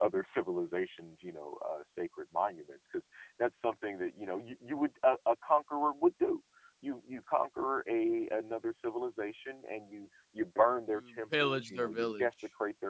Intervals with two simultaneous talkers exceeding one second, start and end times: 10.9-12.3

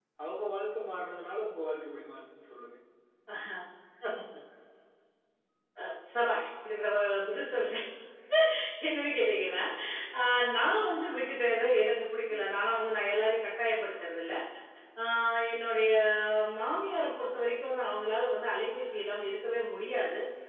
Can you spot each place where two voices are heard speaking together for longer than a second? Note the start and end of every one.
none

